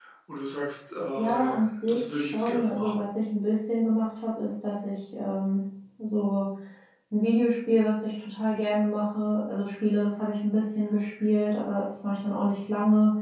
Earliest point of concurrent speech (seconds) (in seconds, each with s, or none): 1.2 s